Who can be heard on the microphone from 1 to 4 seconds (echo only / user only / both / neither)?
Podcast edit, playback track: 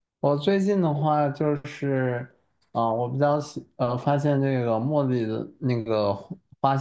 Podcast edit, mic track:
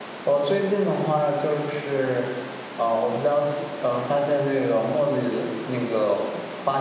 echo only